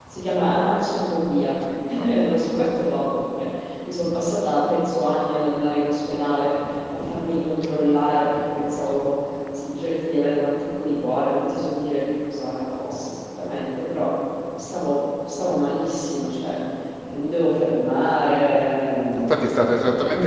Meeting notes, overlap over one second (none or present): none